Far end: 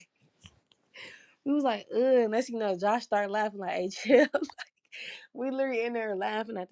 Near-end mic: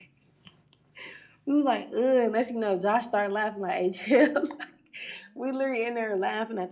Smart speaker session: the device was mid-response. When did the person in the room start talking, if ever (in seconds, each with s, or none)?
none